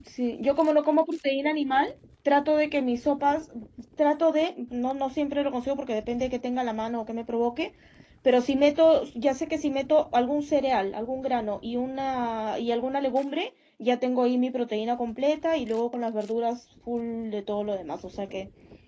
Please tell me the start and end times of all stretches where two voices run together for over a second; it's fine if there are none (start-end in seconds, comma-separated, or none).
none